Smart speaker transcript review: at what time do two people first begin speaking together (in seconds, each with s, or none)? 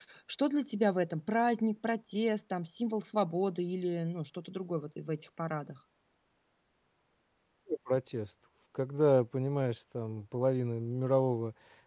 none